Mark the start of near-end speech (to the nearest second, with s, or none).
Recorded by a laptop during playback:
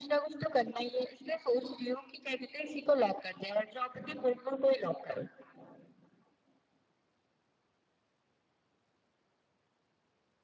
none